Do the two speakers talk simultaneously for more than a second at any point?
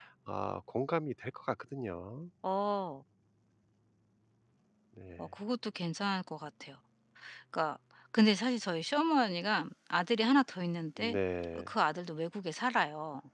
No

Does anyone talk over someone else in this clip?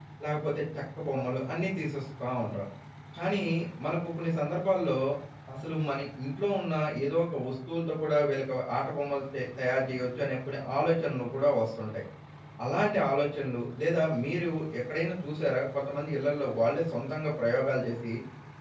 No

